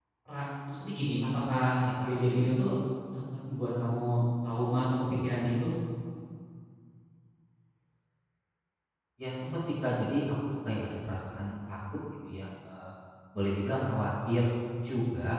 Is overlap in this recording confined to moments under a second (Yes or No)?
Yes